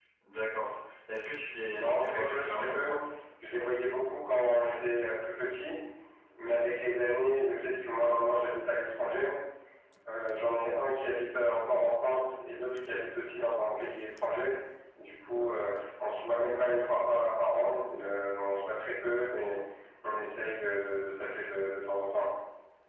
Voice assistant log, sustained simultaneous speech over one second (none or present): present